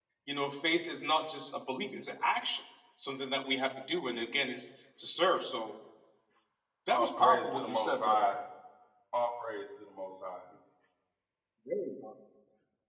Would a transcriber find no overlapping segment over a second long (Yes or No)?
No